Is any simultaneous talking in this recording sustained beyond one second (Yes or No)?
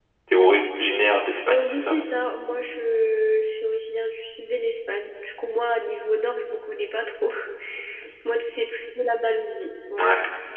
No